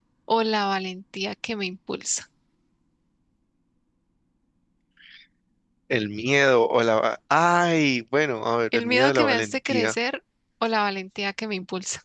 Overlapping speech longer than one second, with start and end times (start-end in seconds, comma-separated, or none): 8.7-9.9